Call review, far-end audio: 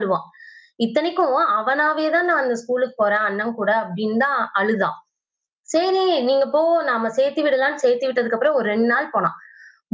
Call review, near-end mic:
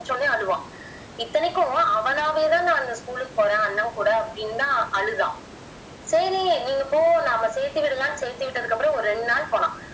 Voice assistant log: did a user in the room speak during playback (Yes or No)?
No